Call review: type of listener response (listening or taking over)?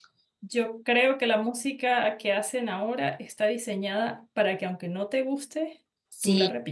taking over